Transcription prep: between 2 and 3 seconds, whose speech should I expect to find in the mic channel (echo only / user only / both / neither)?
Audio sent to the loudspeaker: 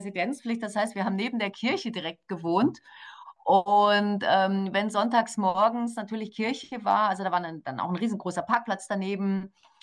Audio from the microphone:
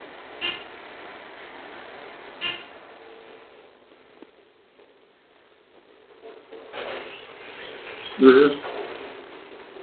neither